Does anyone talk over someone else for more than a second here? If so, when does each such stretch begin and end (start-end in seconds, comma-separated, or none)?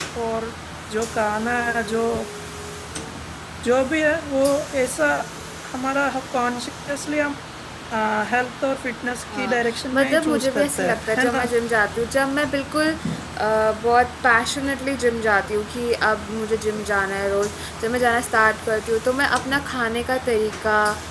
9.3-11.4